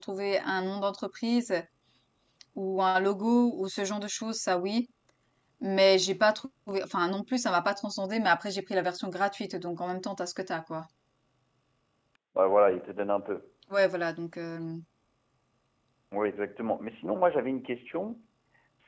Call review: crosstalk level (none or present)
none